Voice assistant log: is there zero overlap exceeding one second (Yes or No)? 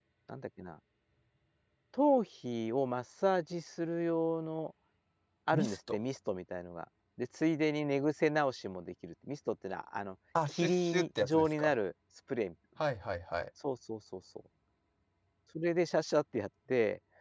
No